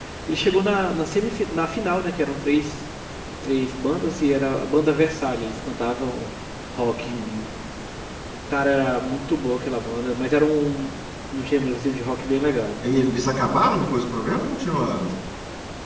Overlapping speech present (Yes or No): No